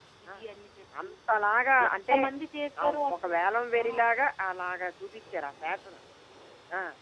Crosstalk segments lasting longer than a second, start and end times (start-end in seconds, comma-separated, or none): none